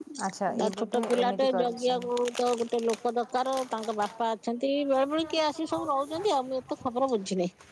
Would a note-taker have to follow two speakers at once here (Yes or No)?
Yes